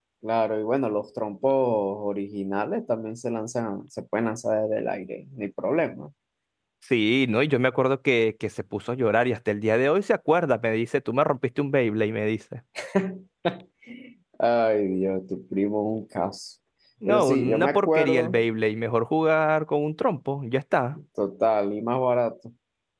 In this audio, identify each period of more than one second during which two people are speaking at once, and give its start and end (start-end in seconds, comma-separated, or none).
17.1-18.4